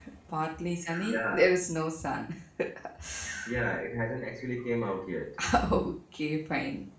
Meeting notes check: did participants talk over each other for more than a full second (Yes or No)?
No